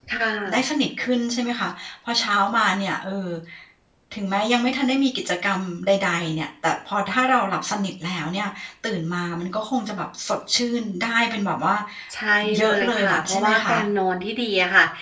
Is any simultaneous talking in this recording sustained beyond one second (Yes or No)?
Yes